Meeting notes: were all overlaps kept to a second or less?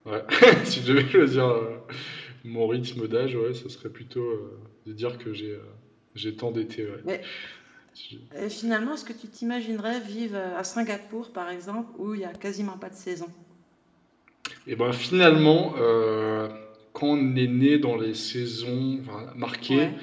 Yes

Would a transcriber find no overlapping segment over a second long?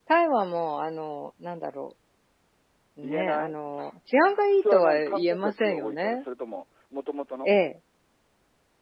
No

